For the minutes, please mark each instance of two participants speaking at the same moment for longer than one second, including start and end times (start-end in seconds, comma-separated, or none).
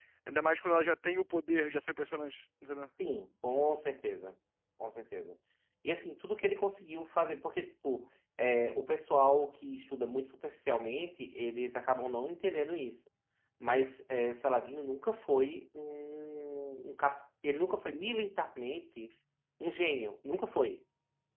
none